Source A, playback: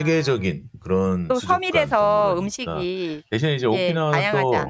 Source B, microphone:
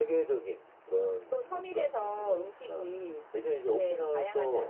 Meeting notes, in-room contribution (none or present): none